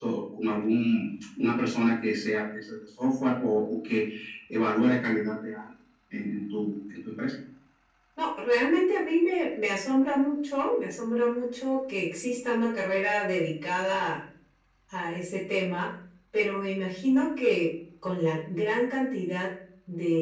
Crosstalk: none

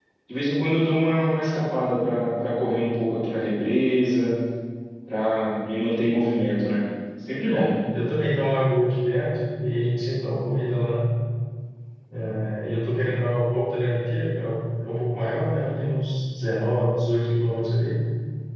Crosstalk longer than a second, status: none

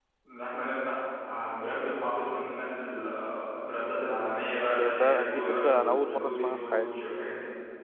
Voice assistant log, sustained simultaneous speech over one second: present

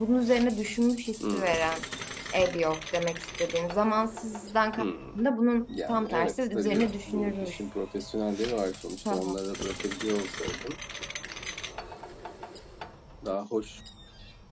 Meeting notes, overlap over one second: present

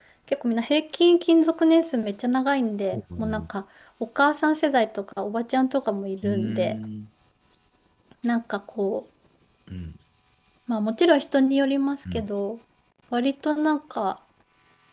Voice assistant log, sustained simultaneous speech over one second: none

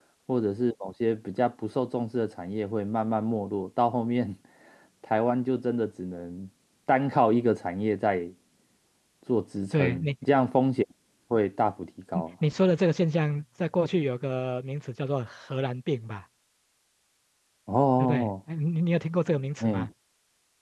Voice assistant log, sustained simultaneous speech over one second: none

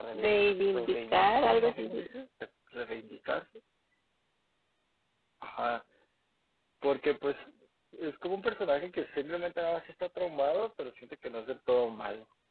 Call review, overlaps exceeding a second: present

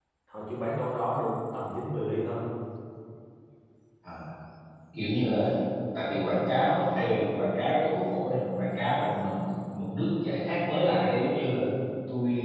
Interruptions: none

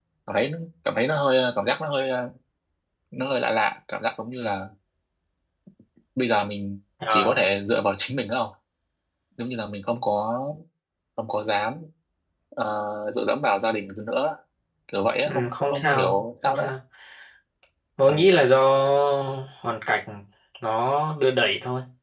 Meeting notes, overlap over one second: present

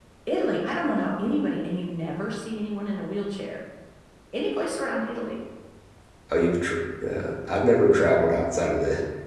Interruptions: none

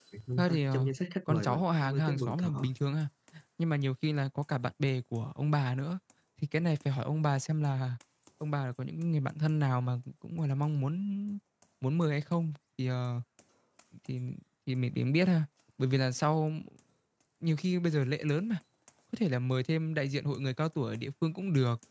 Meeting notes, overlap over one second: present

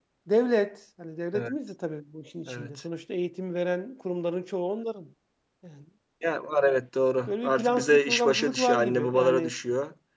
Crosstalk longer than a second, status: present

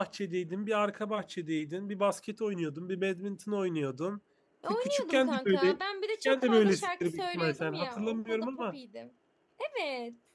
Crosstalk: present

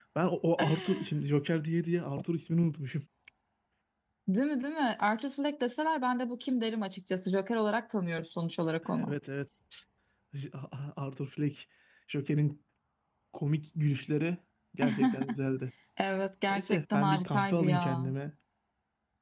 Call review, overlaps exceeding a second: present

